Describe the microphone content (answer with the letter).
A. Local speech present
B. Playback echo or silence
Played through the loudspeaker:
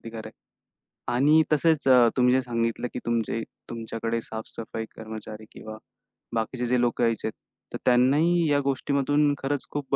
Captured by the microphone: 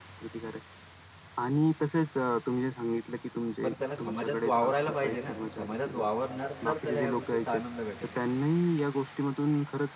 A